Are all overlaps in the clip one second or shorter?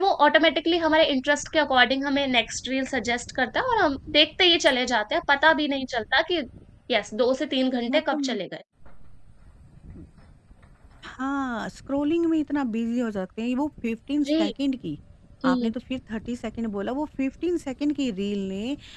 Yes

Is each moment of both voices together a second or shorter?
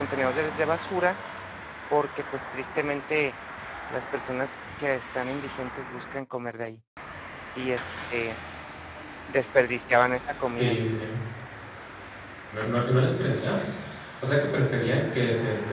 Yes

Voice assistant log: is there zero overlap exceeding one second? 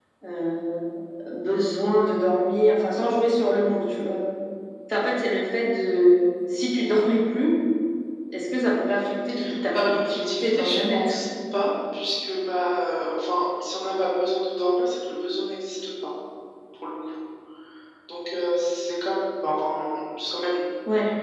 No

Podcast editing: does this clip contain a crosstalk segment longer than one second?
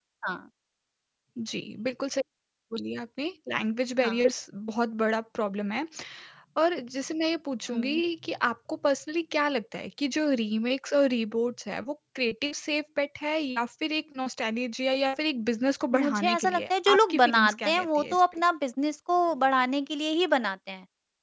Yes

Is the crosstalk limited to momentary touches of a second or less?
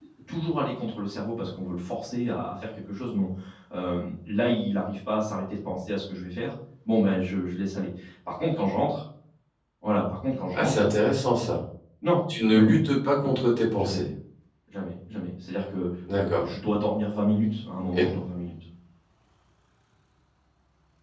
Yes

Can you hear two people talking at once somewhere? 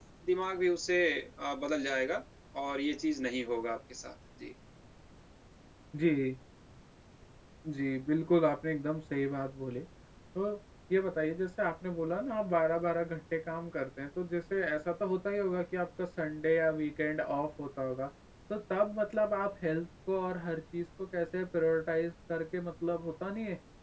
No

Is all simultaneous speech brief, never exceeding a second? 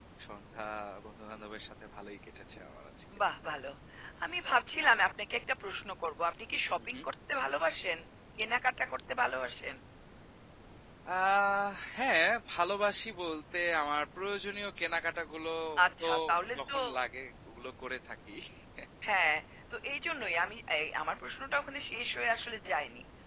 Yes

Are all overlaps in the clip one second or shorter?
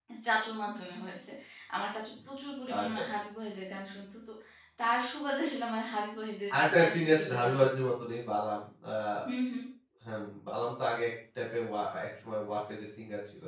No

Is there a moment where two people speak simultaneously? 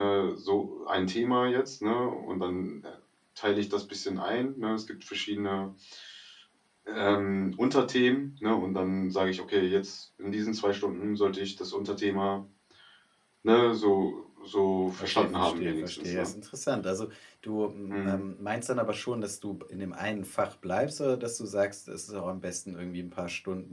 Yes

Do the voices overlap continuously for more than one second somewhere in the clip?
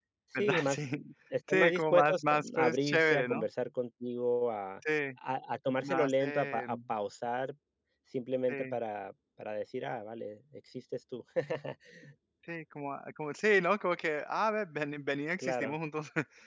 Yes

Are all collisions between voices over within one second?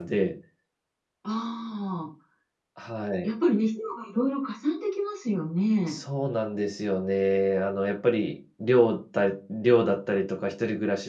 Yes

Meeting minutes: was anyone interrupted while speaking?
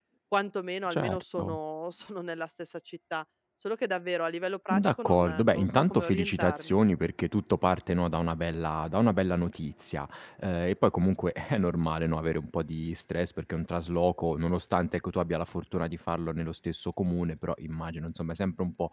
Yes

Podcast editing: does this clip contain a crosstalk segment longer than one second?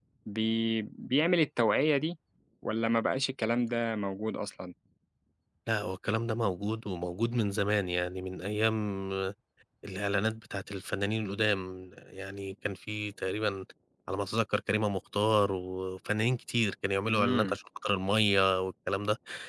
No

